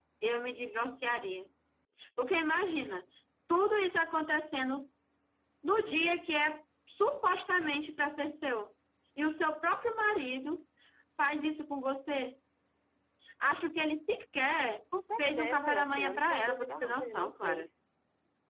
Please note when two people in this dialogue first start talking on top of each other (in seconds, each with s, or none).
15.2 s